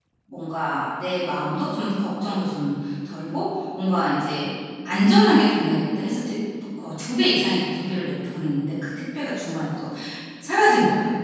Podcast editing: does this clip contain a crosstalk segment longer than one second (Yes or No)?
No